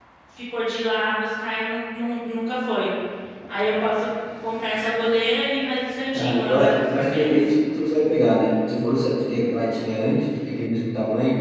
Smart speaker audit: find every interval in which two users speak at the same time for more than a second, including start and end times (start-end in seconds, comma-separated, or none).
6.1-7.4